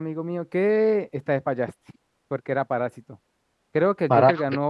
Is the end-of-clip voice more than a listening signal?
No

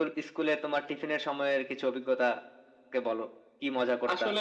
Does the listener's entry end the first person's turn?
Yes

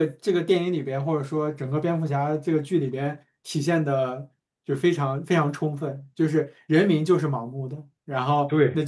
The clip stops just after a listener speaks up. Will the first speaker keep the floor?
Yes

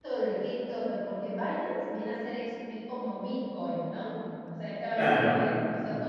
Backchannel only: Yes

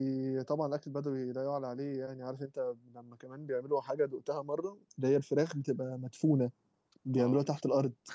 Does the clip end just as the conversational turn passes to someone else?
Yes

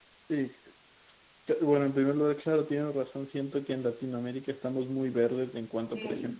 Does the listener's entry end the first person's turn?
No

